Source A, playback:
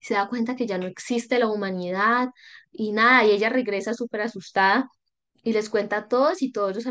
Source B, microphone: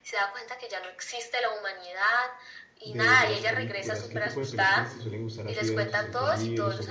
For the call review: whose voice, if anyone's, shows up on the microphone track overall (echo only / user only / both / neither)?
both